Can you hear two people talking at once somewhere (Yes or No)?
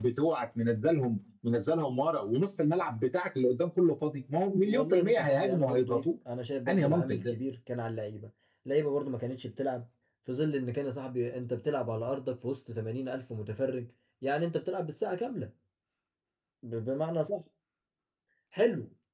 Yes